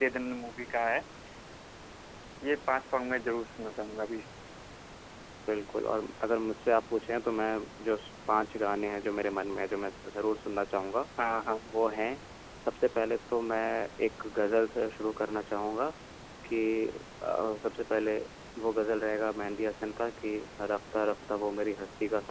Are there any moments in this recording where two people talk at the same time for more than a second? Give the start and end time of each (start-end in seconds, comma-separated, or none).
none